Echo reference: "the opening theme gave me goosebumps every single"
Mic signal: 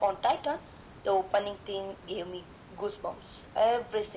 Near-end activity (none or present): none